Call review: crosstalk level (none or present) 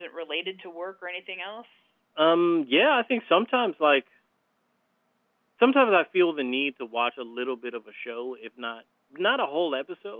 none